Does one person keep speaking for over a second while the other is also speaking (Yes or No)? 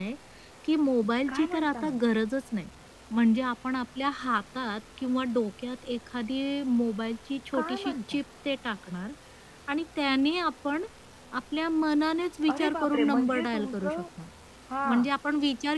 Yes